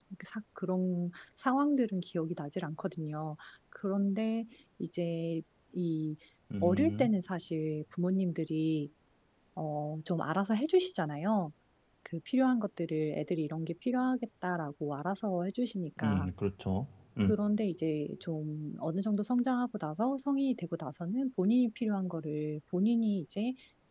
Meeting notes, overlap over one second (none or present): none